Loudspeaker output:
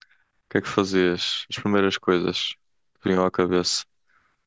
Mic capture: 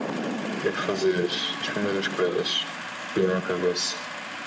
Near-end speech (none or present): none